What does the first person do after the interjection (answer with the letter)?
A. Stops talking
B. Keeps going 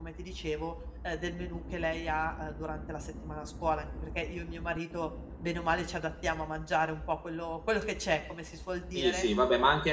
A